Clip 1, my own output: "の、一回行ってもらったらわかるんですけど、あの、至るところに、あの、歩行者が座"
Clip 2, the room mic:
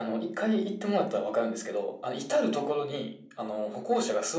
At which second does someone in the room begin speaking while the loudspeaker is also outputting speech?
none

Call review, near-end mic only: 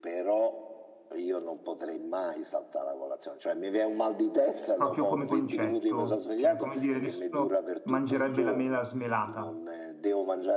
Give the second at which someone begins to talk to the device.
4.8 s

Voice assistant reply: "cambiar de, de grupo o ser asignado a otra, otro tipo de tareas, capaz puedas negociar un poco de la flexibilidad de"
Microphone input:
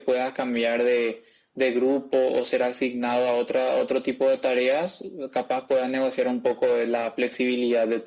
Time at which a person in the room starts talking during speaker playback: none

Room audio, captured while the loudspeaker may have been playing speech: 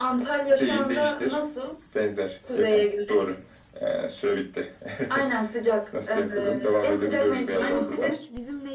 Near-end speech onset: 7.6 s

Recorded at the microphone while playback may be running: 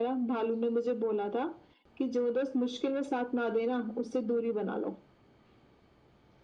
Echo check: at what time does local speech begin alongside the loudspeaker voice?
none

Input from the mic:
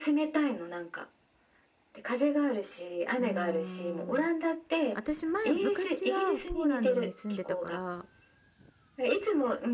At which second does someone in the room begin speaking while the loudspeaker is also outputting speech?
3.2 s

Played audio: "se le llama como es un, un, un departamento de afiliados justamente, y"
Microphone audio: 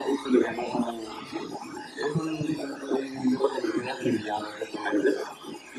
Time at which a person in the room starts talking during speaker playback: none

